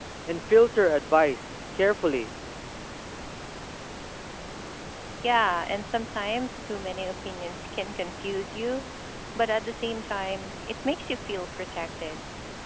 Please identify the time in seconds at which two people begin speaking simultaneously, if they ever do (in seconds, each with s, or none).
none